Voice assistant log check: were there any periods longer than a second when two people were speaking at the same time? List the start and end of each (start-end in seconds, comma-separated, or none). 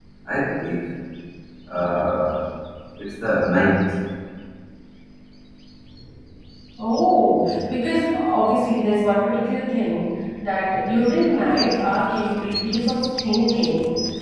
none